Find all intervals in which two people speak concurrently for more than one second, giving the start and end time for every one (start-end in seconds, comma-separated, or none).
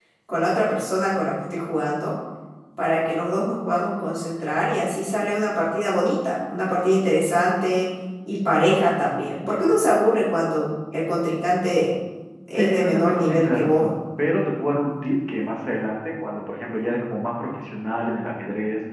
12.6-13.9